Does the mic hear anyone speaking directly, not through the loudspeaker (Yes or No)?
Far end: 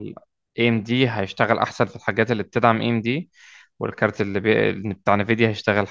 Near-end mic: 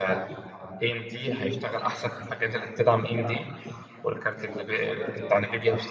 Yes